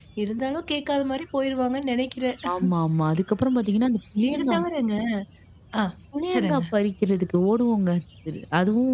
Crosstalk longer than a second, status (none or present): none